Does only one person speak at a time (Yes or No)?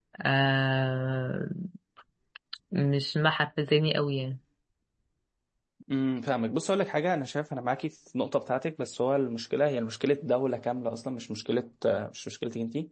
Yes